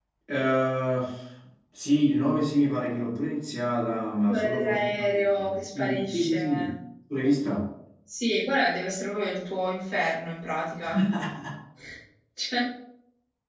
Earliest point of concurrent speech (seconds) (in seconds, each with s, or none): 4.3 s